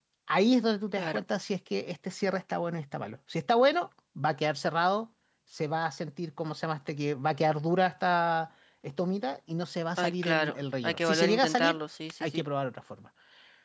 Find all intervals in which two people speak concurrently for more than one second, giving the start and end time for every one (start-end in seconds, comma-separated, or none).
10.0-11.8